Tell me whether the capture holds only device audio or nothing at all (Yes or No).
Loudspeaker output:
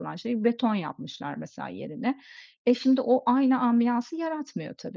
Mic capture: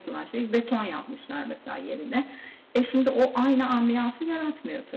Yes